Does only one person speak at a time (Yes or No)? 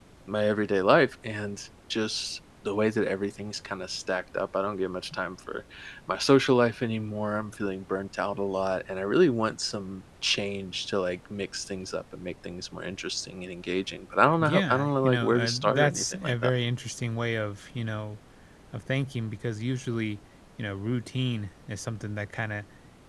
No